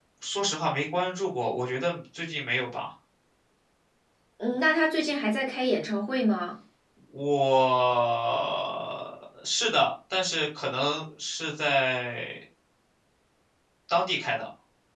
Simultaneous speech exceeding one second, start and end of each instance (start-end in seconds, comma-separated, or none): none